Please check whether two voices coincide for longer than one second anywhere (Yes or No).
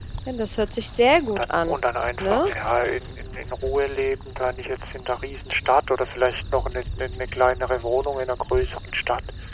No